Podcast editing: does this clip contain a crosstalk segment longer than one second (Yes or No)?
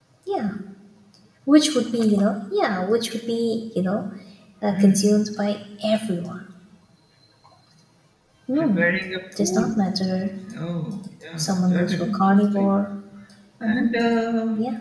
Yes